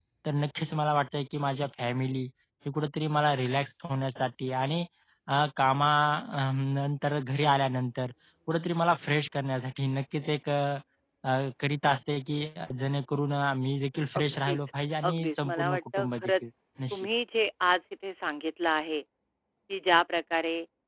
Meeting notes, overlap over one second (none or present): present